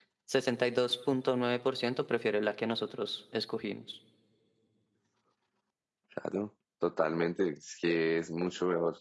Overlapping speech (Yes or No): No